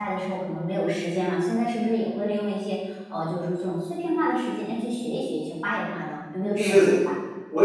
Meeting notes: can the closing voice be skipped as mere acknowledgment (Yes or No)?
No